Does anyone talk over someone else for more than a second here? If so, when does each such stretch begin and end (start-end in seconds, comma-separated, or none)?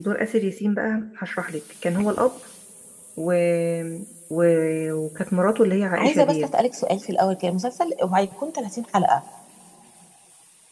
none